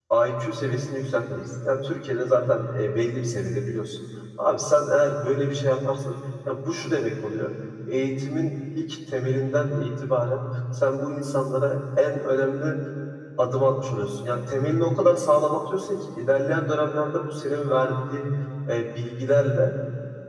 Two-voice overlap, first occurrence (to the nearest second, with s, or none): none